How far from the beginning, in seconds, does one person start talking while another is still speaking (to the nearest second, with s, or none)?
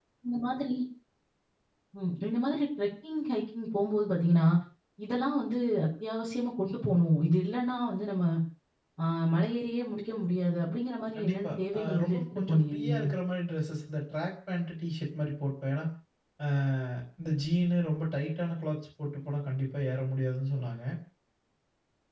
11 s